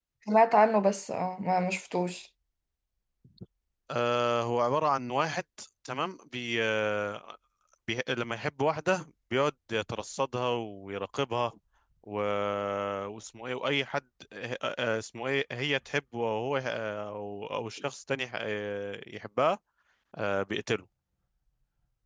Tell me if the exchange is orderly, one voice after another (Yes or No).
Yes